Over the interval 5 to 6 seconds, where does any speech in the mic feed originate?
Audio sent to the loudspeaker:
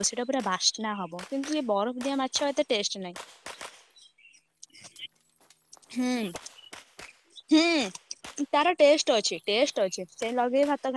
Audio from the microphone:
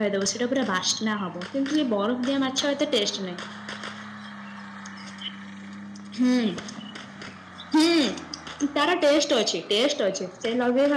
neither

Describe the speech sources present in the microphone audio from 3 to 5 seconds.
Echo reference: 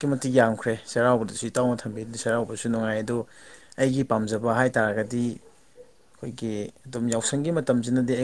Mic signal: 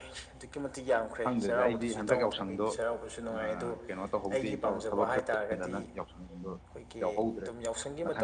both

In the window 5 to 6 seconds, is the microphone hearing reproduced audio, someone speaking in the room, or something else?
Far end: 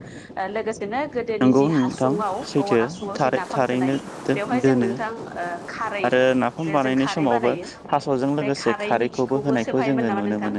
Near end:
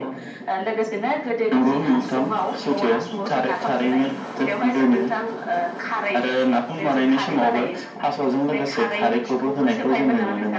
echo only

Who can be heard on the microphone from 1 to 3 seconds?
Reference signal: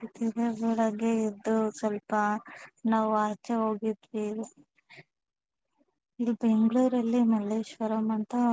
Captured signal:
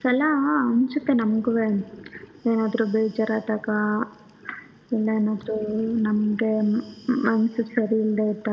user only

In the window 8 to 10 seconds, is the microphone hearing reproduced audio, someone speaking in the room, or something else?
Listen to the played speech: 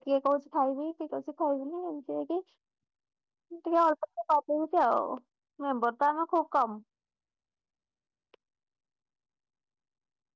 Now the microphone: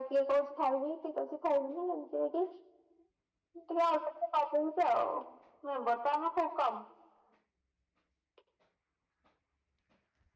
neither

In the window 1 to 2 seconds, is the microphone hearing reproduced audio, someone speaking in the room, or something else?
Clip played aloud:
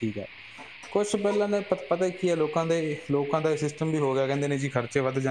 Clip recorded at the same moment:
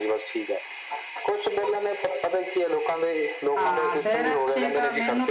echo only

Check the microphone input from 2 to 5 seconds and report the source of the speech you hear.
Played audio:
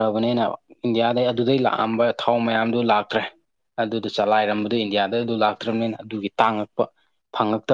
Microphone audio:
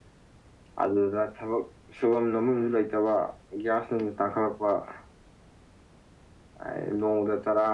user only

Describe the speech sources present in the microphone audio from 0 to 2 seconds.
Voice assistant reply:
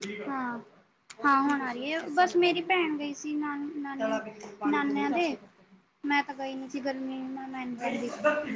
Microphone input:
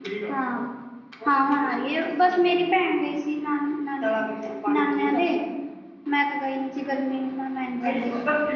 echo only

